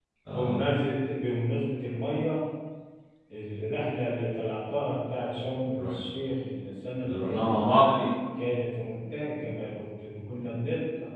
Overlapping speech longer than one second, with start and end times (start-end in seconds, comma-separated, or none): none